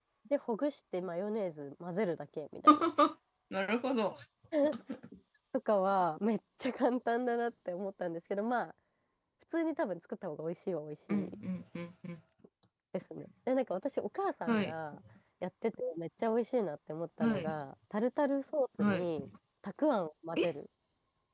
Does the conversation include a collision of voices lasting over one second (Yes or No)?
No